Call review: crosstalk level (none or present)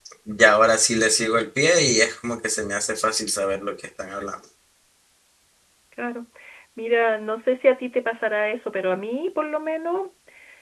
none